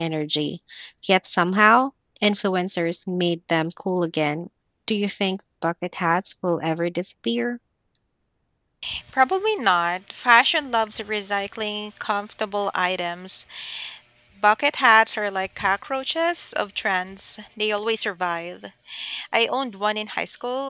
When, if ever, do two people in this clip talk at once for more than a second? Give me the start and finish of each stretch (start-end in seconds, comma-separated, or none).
none